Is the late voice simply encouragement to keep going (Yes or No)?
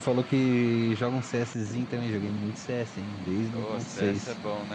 No